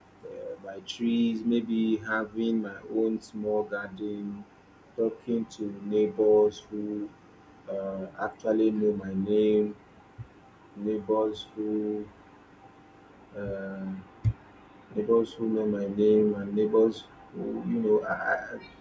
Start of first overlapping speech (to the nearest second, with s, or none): none